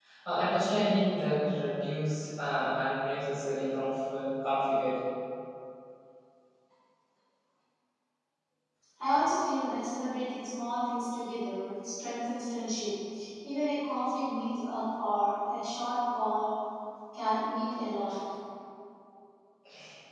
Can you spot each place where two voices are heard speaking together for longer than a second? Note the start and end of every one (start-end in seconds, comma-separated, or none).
none